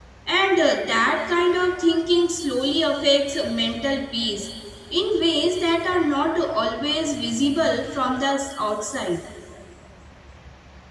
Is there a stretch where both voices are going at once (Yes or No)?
No